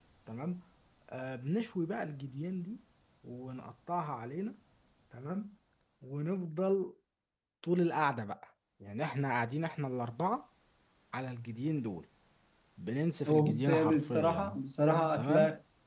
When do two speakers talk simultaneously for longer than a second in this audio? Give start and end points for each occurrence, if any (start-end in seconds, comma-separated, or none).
13.3-14.5